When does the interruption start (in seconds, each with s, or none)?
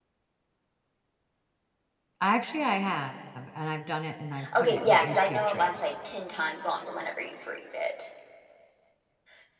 4.4 s